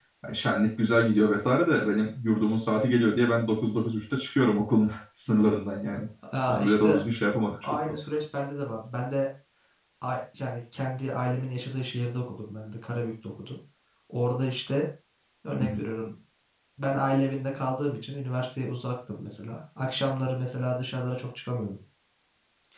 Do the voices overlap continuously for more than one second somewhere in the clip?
No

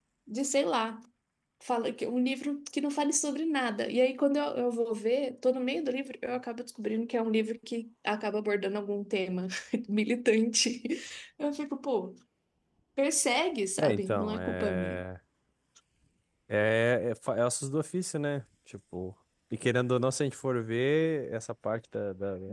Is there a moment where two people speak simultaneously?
Yes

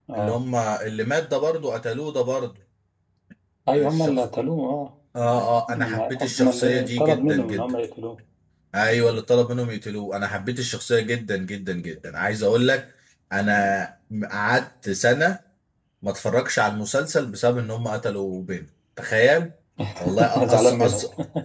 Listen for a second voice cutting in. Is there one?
Yes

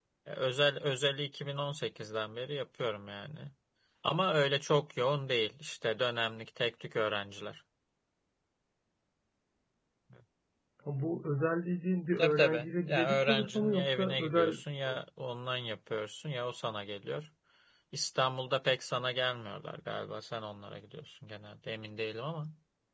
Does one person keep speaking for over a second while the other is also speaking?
Yes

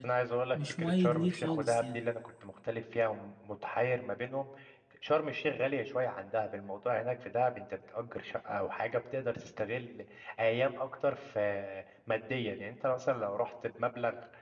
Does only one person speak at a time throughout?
No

